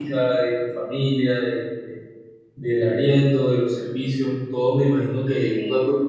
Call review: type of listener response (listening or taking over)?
listening